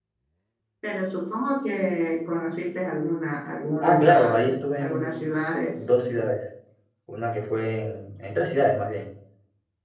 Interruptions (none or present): present